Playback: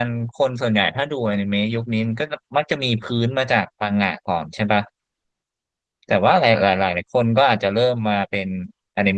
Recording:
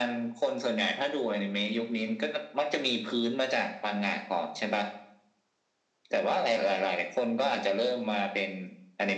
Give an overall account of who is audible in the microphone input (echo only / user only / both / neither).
echo only